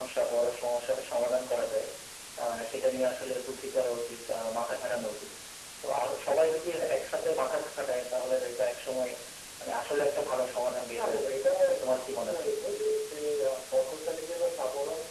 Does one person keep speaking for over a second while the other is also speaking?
Yes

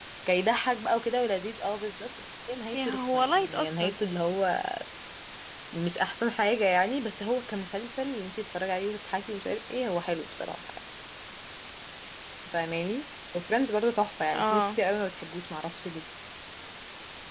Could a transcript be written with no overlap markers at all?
No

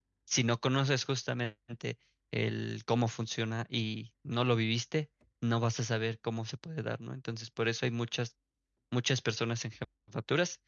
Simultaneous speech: No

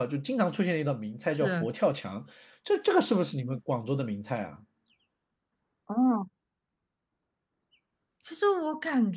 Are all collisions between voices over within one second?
Yes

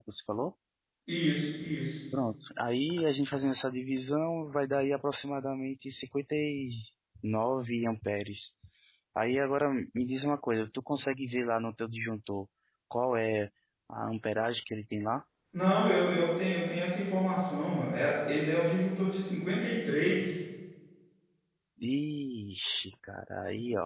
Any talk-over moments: No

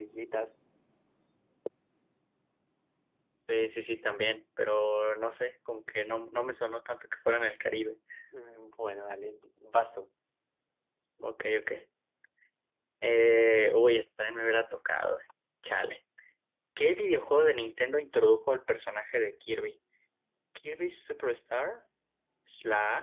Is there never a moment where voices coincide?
Yes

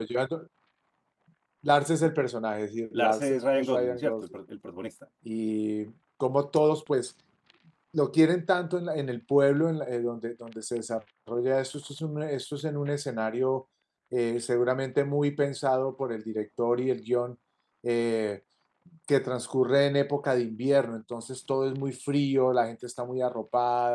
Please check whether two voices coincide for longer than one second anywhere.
Yes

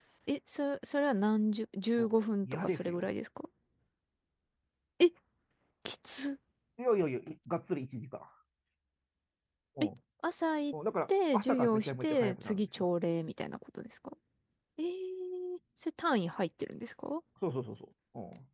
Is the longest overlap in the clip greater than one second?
Yes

